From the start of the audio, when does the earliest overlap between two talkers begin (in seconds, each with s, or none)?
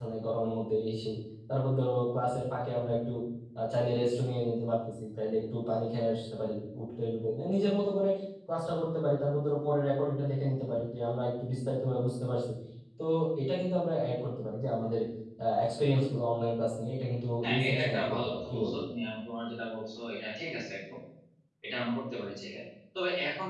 17.4 s